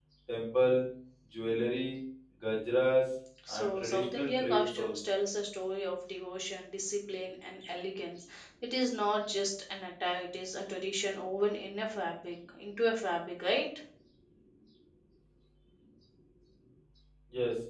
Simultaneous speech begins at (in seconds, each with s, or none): 3.5 s